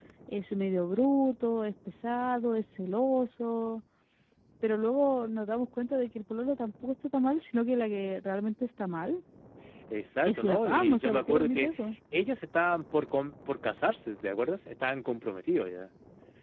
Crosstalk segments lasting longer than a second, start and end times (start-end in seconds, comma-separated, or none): 10.2-11.7